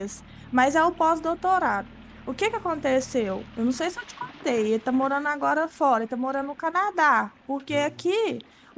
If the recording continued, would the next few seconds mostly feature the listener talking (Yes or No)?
No